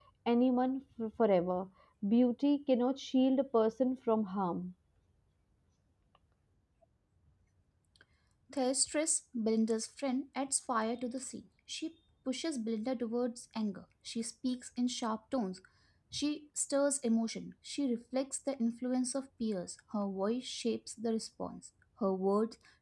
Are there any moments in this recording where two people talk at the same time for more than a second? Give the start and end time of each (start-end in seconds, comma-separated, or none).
none